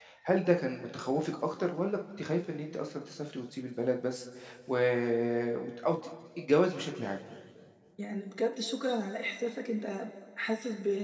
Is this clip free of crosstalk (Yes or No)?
Yes